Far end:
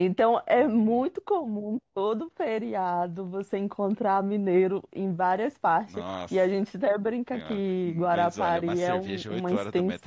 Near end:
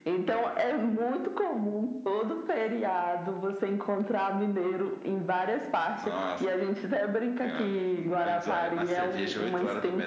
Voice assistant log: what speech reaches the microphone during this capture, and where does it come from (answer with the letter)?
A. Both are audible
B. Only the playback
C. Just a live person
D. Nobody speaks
B